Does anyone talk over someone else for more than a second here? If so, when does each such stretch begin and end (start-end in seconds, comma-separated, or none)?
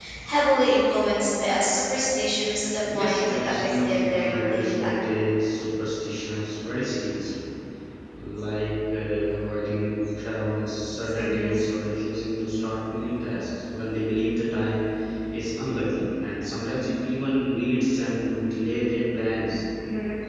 3.0-4.9